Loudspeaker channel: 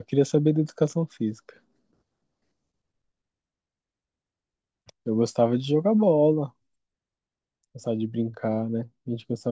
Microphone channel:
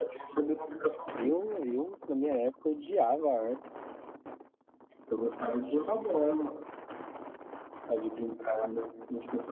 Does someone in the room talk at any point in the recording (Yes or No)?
Yes